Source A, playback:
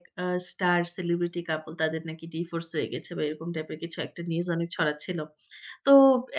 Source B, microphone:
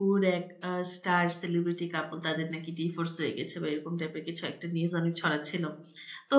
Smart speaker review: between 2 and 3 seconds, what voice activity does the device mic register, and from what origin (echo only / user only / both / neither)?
echo only